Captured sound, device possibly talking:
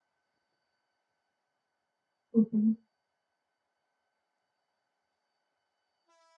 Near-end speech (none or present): present